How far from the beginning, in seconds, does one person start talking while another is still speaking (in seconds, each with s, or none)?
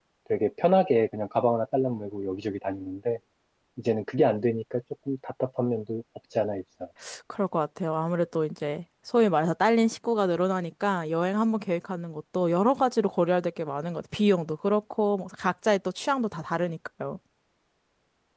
none